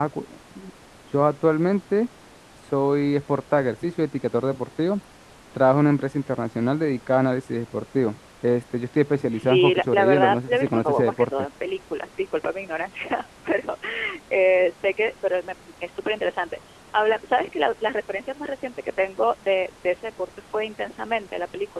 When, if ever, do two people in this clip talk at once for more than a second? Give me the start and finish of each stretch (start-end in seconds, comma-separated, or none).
9.3-11.3